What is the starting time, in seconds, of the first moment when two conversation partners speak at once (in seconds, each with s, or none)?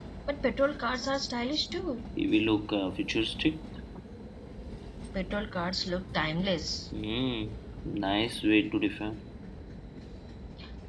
none